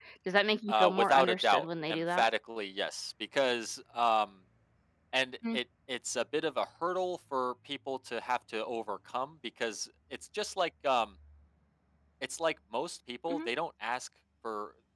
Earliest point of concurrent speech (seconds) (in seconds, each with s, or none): 0.7 s